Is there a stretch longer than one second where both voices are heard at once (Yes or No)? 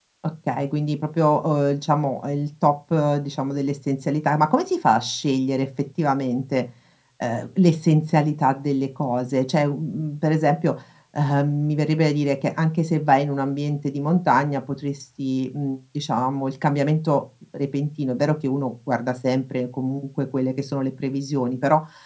No